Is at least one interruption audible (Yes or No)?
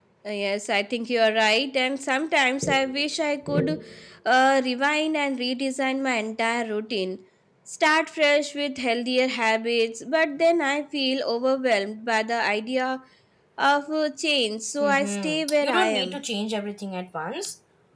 Yes